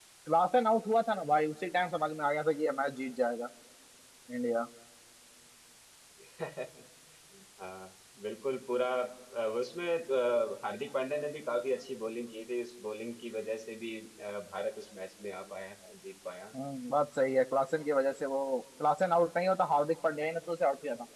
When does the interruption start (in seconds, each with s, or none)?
none